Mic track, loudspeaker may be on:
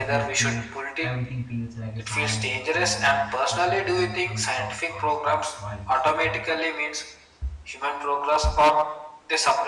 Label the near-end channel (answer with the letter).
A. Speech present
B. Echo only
A